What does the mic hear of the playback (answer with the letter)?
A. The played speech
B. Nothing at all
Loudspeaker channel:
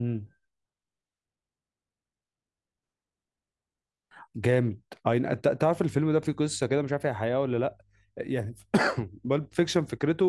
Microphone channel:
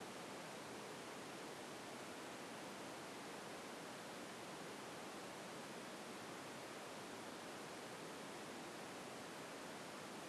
B